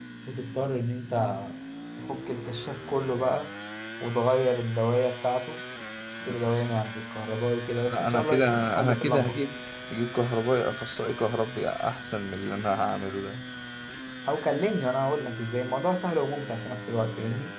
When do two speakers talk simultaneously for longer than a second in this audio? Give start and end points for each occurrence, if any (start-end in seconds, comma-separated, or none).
7.9-9.4